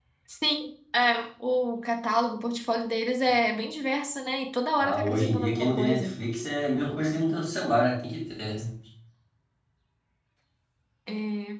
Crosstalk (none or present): present